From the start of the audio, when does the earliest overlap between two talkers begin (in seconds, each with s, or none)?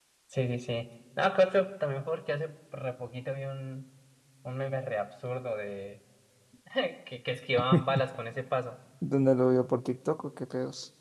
none